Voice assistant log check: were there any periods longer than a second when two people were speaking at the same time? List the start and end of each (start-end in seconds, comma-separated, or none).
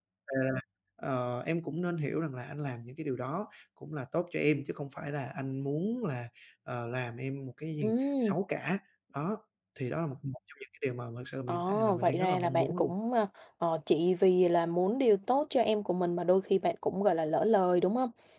11.5-12.9